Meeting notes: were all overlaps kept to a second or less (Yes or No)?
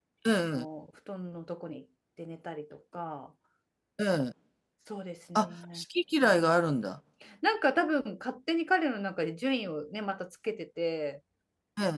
Yes